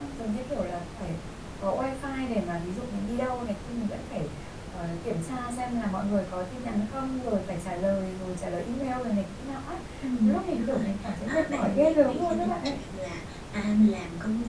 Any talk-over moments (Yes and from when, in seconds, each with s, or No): Yes, from 10.2 s